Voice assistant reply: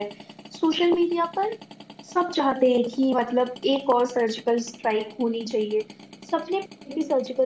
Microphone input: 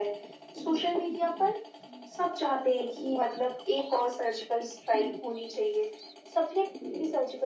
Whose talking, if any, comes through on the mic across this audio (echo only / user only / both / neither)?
echo only